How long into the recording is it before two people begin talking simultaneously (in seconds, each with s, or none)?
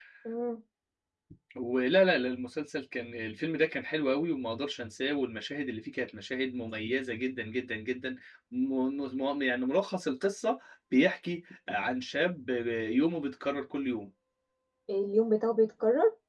none